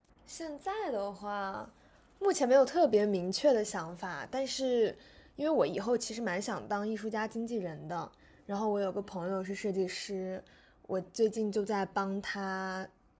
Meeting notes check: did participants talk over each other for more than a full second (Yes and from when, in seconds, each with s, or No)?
No